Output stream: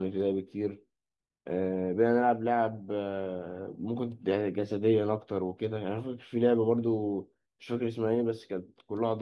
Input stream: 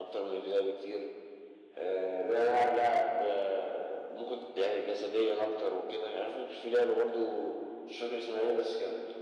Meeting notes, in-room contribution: none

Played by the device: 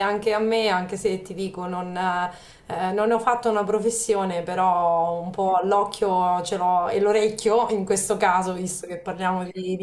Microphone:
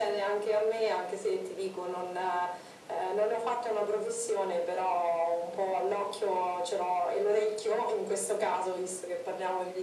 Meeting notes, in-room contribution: none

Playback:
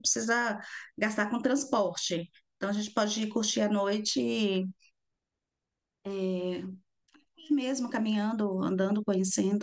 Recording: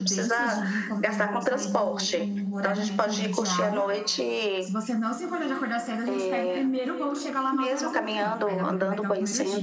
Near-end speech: present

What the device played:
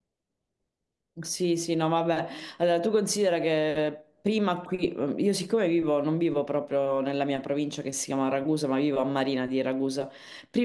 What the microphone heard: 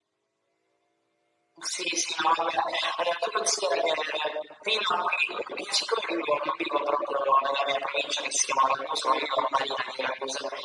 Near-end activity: none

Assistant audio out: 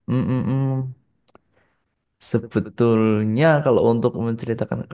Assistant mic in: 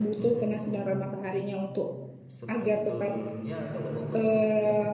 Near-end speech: present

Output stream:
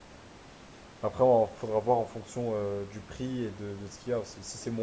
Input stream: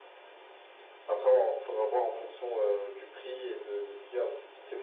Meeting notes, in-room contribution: none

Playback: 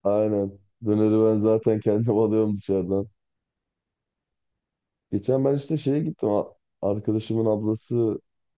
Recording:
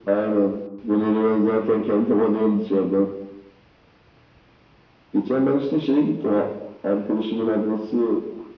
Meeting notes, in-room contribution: none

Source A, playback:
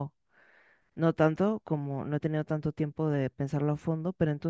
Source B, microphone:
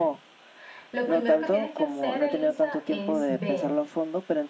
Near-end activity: present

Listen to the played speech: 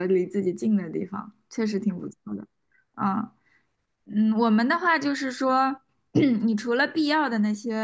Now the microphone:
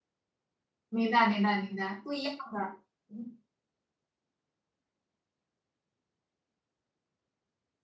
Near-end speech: present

